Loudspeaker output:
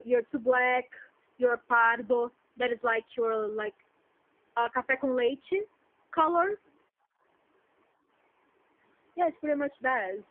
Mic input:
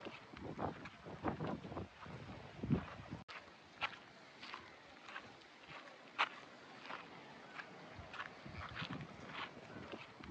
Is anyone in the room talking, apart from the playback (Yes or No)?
No